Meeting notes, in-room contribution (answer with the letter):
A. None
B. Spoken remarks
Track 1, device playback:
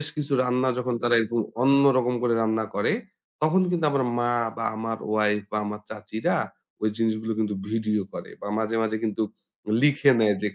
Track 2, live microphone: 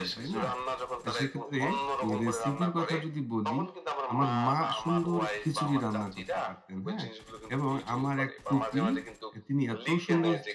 B